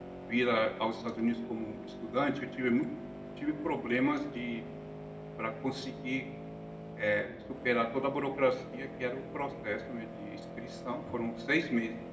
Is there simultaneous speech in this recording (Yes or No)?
No